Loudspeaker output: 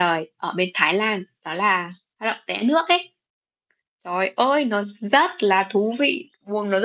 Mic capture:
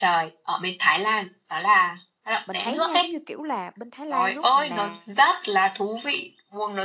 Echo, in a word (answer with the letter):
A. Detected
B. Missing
A